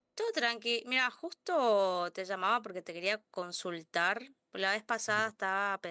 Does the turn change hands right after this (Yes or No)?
No